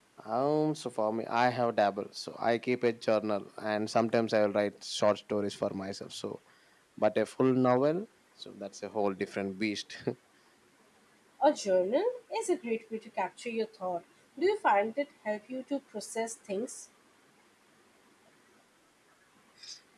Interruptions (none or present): none